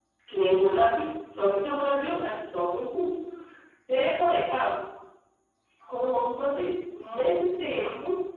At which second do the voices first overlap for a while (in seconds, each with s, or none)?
none